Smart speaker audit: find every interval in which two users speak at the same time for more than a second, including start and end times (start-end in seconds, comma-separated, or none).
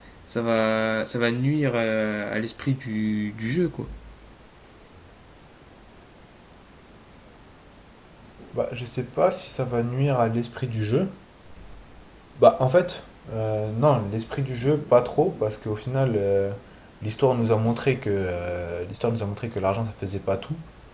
none